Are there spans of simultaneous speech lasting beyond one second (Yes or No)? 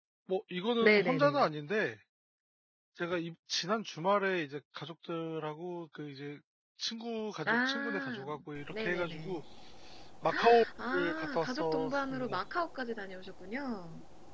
Yes